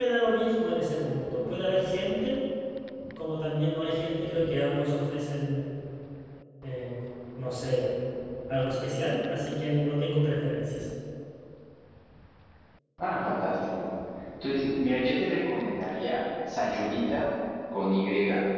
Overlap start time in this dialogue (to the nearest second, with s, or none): none